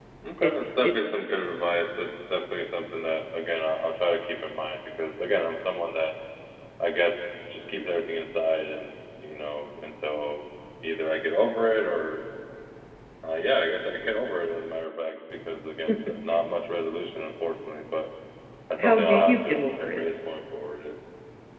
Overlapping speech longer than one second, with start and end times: 18.8-20.1

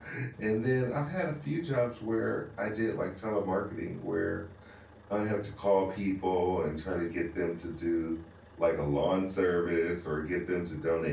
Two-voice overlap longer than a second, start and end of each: none

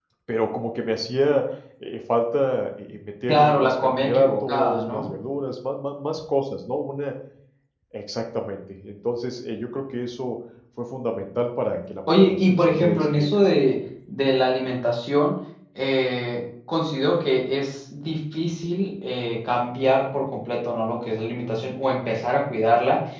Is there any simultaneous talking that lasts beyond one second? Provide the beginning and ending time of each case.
3.3-5.1, 12.1-13.6

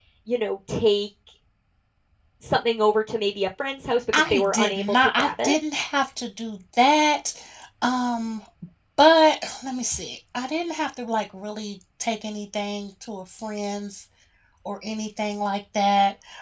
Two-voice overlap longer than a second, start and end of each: 4.1-5.6

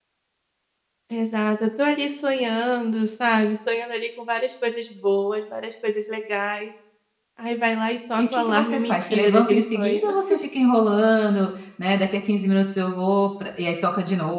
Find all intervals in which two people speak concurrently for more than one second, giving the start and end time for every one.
8.2-10.0

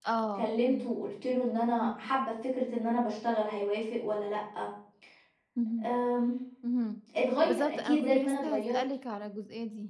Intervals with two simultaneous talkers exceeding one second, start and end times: 7.4-8.8

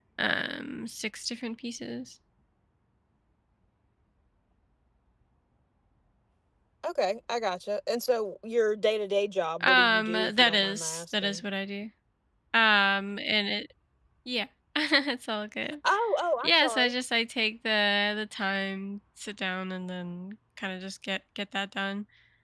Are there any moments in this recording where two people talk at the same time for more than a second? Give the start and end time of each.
9.6-11.4

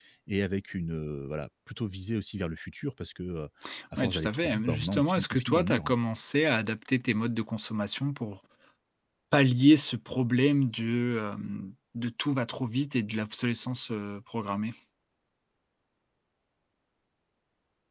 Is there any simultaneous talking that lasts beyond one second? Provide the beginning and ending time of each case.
4.0-5.9

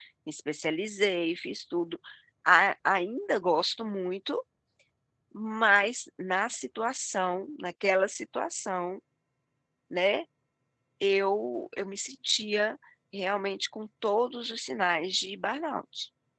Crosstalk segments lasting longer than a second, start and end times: none

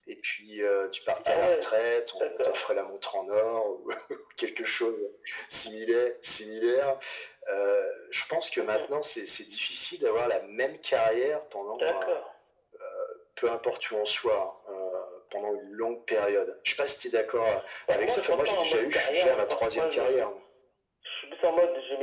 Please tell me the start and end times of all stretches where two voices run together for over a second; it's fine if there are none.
17.9-20.3

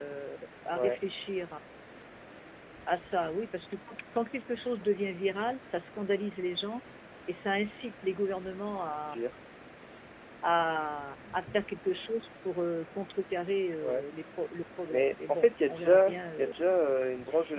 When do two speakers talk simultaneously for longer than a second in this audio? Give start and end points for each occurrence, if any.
14.9-16.5

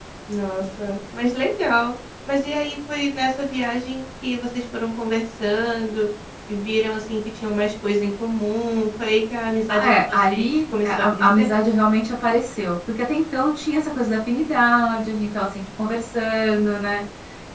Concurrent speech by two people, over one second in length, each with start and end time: 9.7-11.5

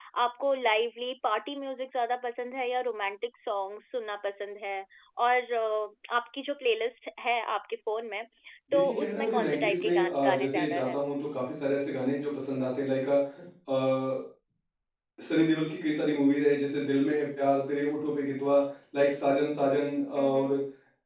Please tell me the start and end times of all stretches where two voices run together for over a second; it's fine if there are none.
8.7-11.0

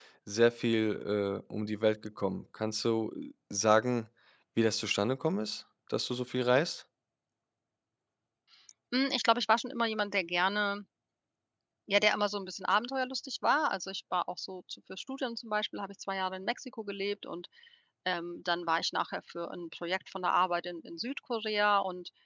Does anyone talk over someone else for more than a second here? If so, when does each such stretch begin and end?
none

